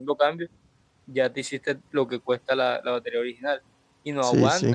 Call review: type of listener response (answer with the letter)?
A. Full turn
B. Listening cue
B